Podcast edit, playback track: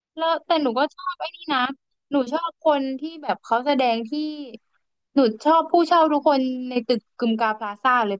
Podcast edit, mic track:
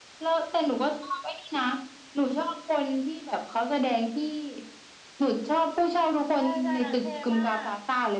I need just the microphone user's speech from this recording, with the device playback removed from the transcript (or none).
ใช่ใช่นางเท่มาก